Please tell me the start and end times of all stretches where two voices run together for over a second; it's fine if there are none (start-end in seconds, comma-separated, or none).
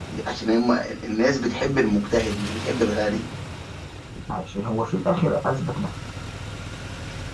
none